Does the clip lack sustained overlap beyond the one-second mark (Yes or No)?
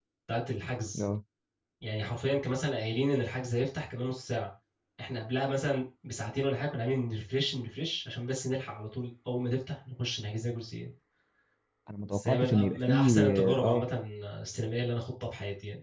No